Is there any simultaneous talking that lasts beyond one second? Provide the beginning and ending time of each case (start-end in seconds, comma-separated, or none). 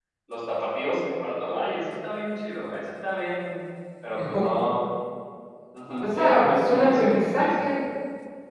6.0-7.5